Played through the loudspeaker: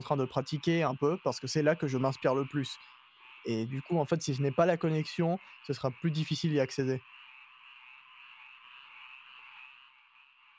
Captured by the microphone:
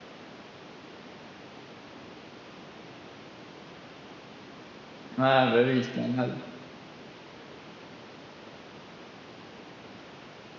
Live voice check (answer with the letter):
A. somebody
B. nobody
A